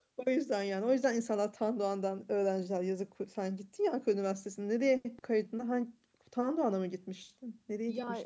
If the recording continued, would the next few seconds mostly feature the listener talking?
Yes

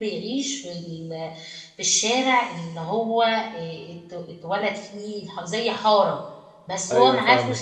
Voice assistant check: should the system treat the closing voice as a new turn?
No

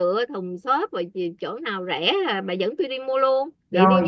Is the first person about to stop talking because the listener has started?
Yes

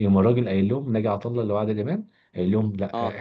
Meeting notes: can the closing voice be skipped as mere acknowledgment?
Yes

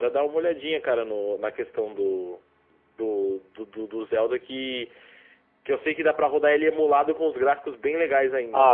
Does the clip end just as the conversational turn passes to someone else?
Yes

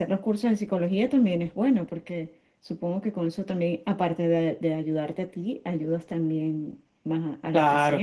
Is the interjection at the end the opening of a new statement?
Yes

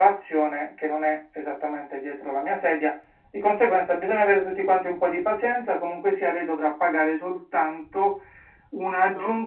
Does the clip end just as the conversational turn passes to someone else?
No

